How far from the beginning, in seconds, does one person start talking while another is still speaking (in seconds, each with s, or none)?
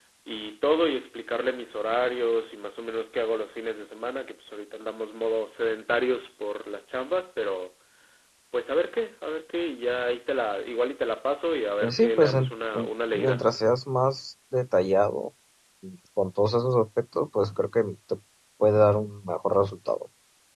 11.8 s